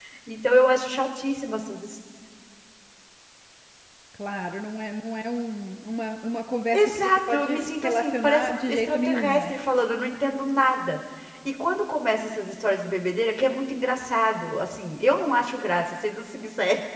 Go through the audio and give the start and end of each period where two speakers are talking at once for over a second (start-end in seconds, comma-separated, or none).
6.7-9.5